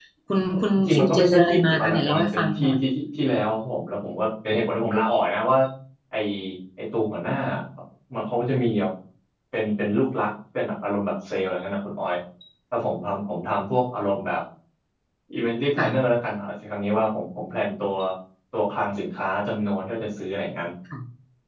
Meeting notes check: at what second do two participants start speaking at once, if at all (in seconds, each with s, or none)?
0.8 s